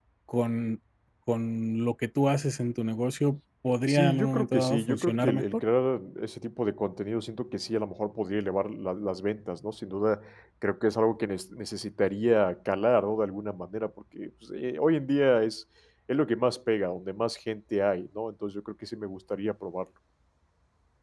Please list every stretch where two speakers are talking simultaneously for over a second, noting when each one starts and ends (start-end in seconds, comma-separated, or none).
3.9-5.6